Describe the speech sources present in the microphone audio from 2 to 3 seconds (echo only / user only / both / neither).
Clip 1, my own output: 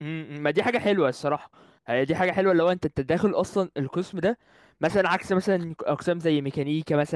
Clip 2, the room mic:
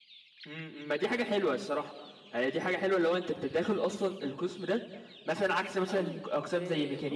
echo only